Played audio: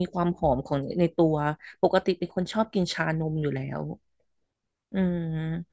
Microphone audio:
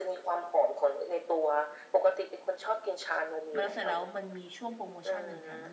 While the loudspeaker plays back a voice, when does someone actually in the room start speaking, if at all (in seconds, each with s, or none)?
3.6 s